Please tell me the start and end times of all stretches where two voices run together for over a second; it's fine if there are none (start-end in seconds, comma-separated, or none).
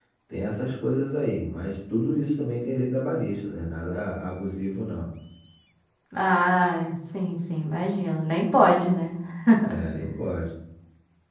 none